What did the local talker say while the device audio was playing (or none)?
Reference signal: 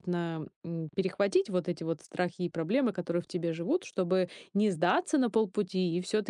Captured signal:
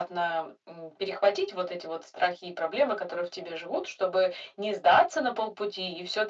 none